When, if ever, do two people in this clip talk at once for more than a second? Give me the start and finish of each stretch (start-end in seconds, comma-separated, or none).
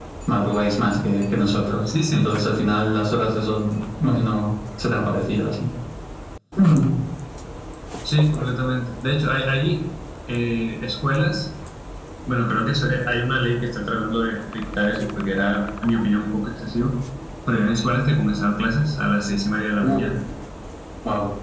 none